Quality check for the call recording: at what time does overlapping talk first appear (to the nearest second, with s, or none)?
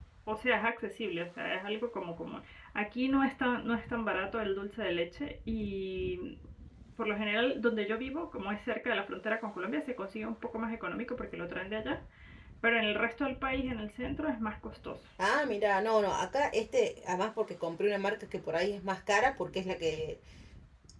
none